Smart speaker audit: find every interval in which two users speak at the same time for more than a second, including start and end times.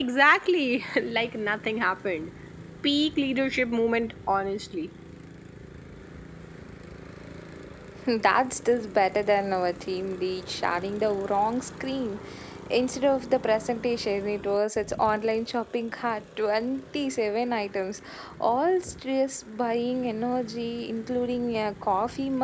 none

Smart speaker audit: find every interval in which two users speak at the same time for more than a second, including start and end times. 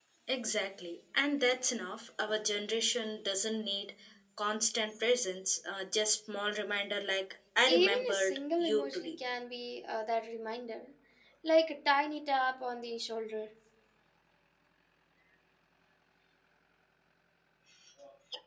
7.7-9.1

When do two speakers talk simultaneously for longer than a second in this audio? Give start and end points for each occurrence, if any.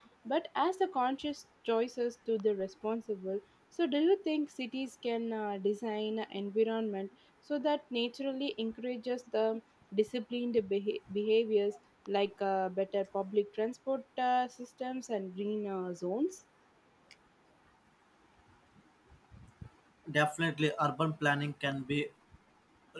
none

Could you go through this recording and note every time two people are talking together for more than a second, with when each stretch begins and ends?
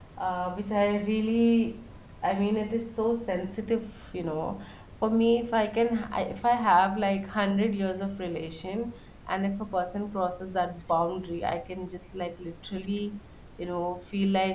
none

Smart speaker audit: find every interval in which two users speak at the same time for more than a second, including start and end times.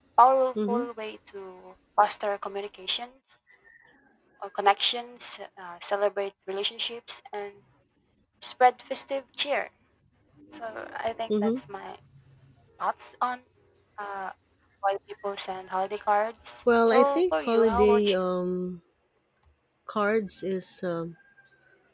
16.8-18.2

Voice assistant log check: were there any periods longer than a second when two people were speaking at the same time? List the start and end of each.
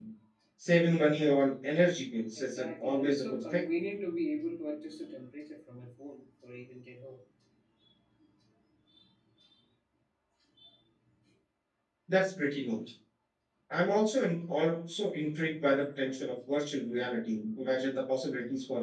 2.4-3.6

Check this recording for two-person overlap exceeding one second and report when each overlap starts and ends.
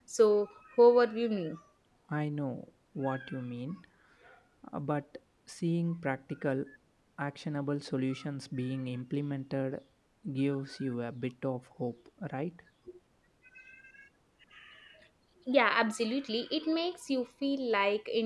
none

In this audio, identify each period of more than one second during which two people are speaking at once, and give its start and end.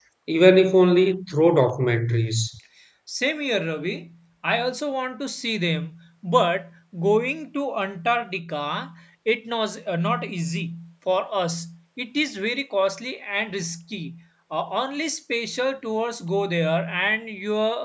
none

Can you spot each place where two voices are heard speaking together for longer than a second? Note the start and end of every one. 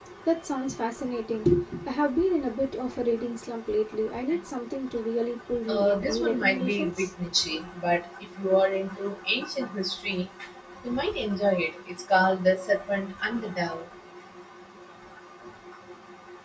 5.7-7.1

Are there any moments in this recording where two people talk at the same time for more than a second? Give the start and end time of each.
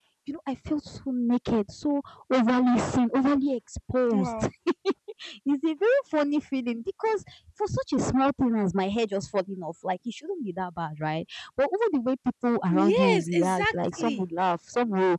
12.7-14.2

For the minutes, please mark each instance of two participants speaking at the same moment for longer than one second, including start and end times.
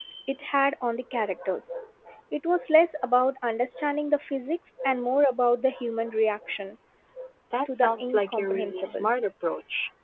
7.7-9.1

